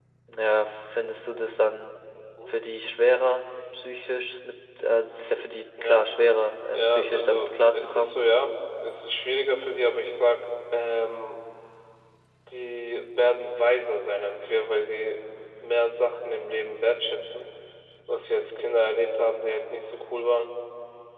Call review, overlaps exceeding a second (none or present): present